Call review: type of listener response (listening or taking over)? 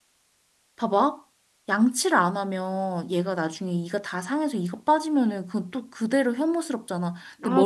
listening